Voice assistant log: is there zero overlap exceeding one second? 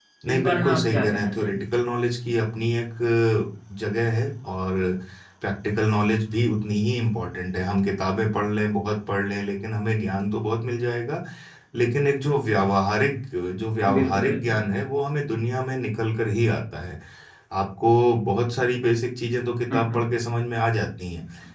No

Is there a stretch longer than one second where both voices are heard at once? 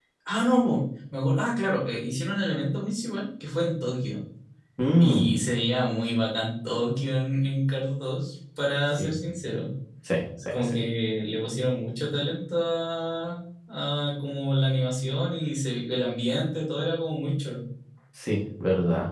No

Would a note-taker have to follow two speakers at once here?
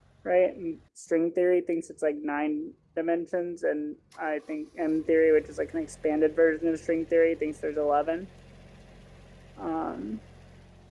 No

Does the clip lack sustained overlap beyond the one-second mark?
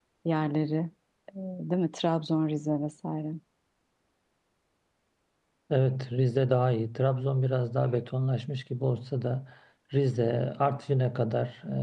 Yes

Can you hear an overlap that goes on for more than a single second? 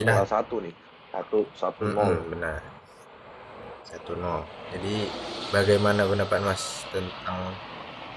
No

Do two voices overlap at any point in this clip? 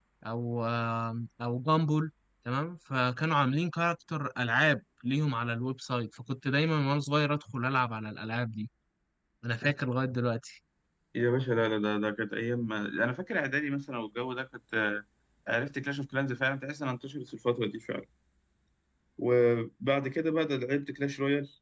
No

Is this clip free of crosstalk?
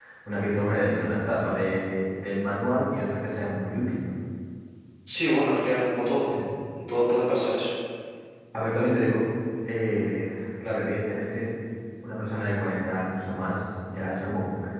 Yes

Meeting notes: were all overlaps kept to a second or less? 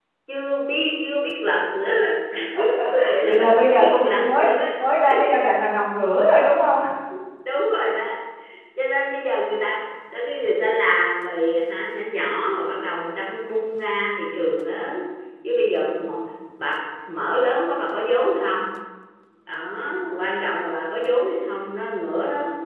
No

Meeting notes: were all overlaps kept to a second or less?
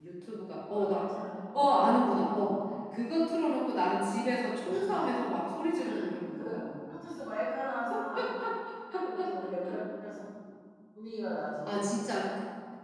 Yes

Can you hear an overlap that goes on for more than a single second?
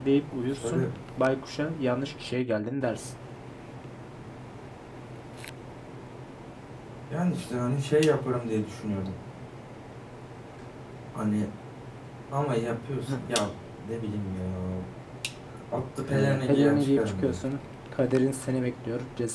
Yes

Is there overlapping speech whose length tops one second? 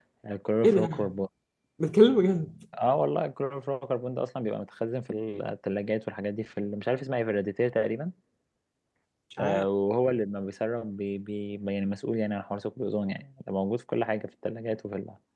No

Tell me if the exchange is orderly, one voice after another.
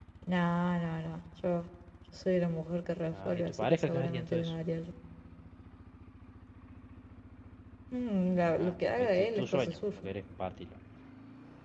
No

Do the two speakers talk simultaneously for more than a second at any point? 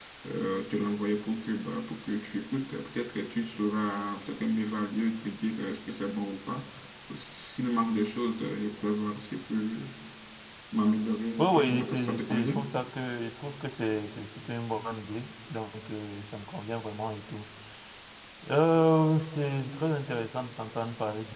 Yes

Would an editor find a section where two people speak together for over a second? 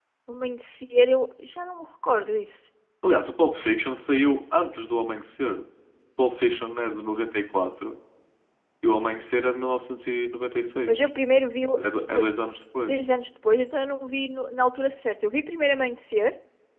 No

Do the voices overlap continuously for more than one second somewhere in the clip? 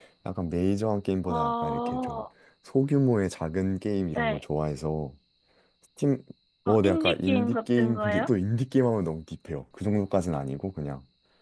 Yes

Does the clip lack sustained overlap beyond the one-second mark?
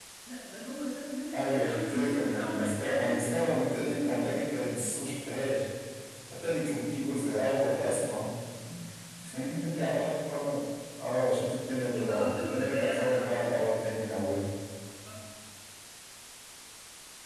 No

